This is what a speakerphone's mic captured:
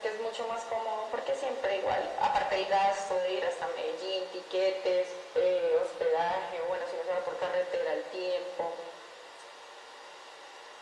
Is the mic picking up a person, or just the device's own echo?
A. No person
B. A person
A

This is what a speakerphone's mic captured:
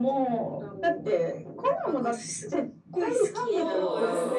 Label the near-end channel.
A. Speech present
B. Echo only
A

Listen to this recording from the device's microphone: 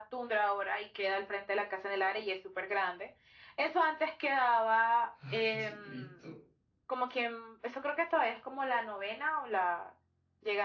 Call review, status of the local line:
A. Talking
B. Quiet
A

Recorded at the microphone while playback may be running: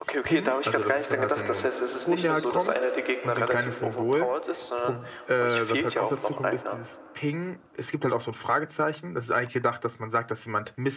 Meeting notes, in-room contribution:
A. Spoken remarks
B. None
A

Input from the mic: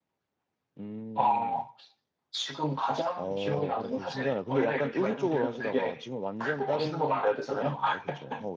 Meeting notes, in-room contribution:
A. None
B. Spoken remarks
B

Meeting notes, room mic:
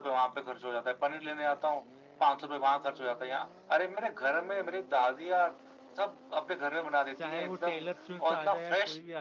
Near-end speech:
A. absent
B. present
B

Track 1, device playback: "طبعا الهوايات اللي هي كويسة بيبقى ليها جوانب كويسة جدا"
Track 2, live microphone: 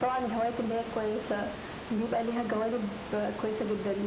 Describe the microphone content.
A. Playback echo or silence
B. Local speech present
A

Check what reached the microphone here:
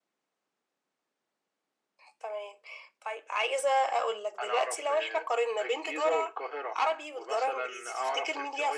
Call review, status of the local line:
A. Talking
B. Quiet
B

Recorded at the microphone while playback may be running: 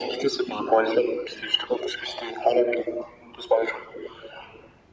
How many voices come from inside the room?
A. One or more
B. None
B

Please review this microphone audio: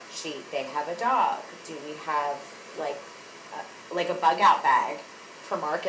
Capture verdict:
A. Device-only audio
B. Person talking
A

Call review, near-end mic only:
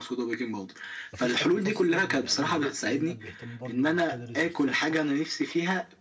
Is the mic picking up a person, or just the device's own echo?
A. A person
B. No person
A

